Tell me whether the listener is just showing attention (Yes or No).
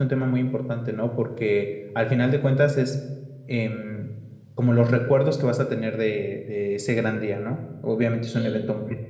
Yes